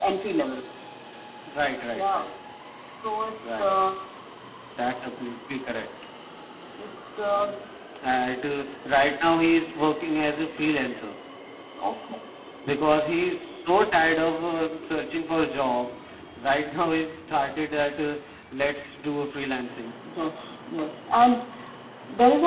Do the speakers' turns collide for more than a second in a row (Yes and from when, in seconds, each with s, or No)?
No